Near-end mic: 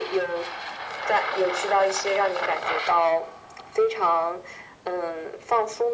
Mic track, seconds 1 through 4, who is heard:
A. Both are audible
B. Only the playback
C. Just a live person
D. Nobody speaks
B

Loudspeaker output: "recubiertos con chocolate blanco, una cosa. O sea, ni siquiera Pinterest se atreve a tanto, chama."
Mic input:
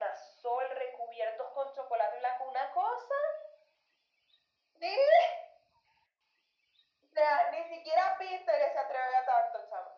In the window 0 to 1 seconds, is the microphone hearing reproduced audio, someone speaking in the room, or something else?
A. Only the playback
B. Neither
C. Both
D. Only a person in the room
A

